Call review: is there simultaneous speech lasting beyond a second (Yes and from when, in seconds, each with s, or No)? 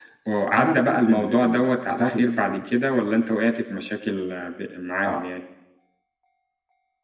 Yes, from 0.6 s